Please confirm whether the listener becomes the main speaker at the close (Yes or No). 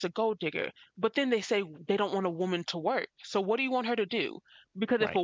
No